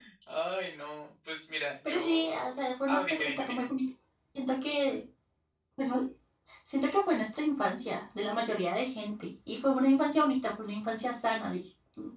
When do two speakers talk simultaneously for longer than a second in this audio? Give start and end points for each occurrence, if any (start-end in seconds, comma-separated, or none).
1.9-3.6